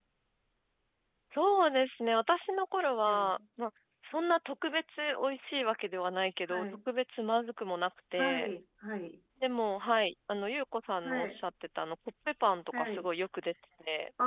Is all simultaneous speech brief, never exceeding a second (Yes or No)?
Yes